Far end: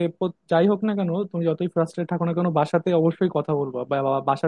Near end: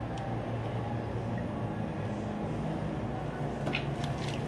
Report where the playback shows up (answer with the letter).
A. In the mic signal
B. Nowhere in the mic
B